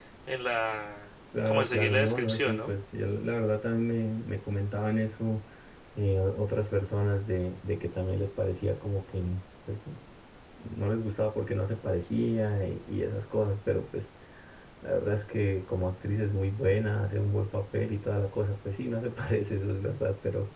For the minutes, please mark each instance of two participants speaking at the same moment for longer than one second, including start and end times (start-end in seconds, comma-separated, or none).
1.5-2.7